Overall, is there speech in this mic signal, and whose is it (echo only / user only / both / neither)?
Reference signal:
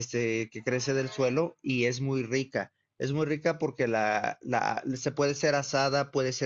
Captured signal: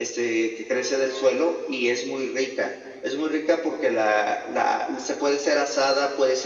echo only